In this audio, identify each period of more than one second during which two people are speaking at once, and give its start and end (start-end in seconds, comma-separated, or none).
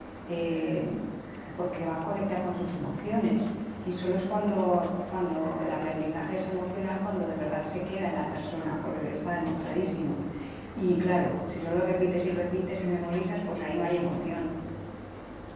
none